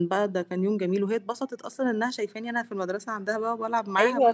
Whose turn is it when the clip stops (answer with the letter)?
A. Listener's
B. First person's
A